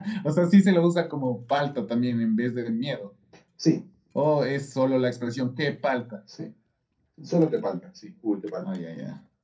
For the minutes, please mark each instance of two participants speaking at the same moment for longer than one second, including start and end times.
none

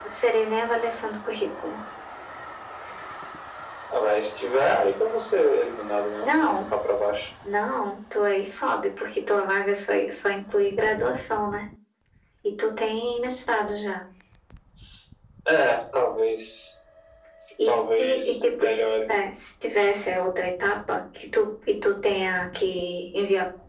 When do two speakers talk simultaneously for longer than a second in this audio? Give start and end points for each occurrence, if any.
17.7-19.1

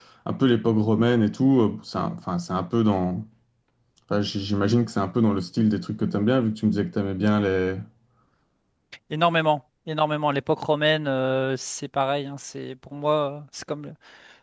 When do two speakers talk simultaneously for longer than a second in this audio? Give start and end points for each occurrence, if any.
none

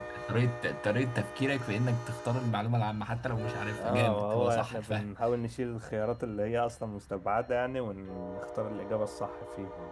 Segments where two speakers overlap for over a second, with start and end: 3.8-5.1

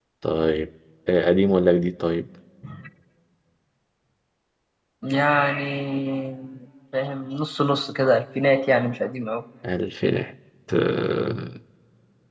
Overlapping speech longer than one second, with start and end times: none

